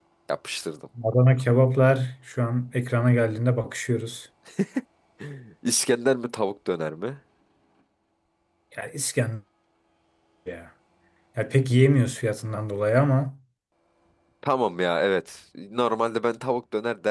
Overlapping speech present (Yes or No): No